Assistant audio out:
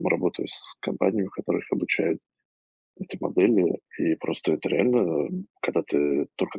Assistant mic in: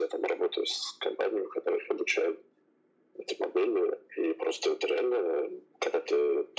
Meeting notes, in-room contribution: none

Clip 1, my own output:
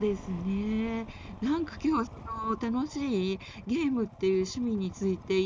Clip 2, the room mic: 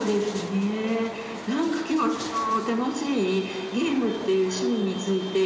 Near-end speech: none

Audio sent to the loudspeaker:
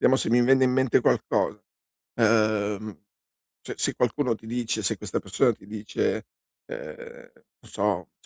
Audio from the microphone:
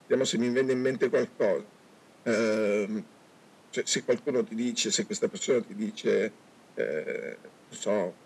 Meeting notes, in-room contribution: none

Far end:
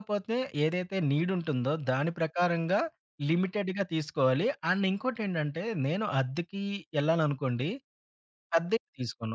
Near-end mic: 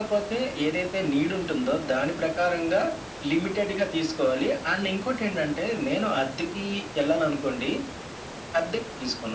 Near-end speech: none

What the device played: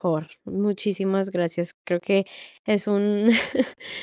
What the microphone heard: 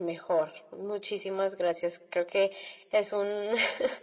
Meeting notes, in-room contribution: none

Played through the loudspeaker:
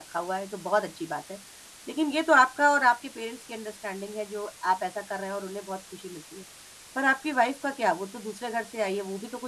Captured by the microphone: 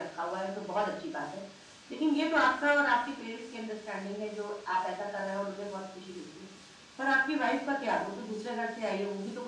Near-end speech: none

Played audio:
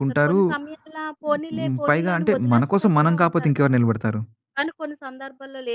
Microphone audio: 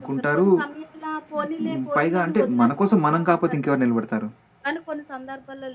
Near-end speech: none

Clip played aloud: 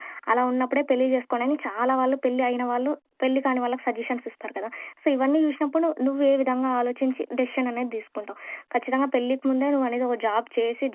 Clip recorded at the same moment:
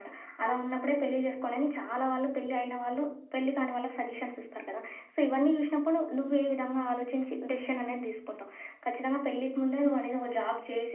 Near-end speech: none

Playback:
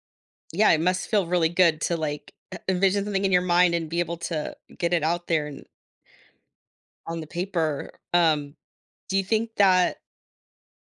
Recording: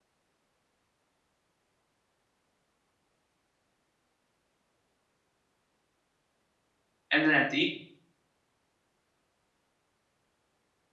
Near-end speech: present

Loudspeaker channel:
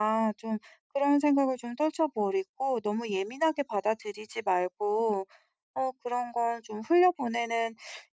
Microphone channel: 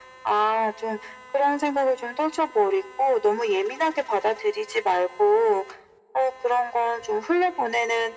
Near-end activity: none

